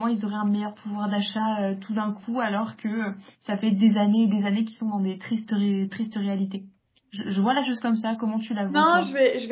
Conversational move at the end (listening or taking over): taking over